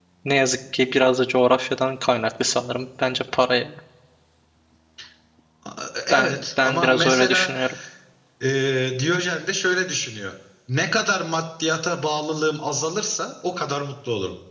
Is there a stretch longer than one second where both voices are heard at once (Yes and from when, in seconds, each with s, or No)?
Yes, from 6.1 s